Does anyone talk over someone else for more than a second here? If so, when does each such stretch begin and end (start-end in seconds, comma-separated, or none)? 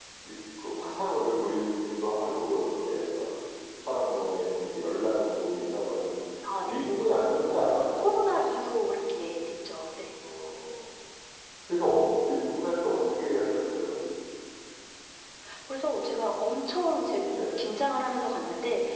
none